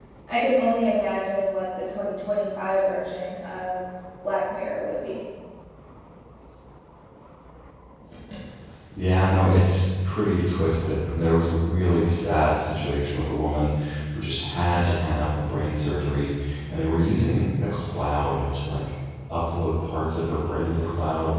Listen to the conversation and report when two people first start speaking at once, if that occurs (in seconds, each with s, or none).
none